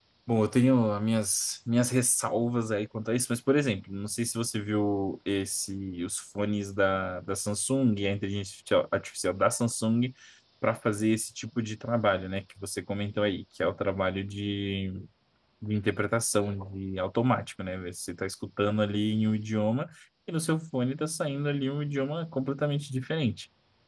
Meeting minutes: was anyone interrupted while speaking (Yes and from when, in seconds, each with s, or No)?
No